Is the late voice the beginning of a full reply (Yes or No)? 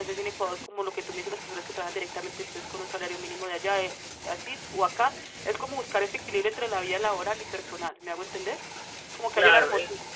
Yes